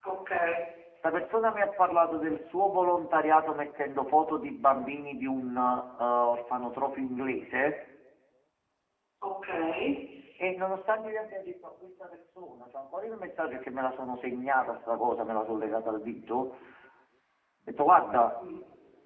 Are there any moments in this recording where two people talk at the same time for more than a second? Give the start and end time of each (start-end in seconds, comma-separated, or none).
none